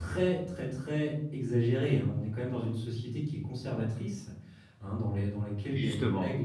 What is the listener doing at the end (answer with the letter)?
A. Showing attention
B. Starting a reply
A